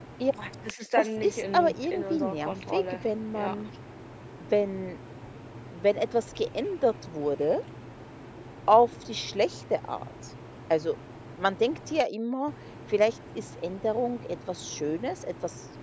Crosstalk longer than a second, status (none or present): present